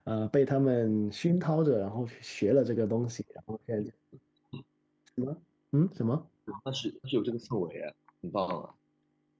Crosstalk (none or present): none